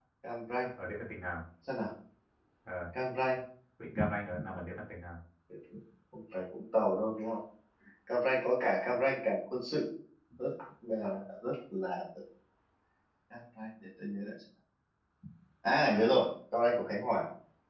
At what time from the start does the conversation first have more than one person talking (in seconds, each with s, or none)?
none